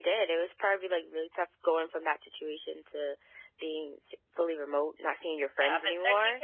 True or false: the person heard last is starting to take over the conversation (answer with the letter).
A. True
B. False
A